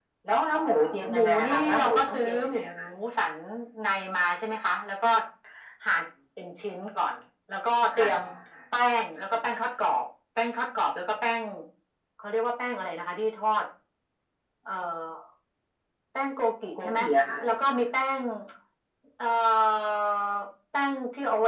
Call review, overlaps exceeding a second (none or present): present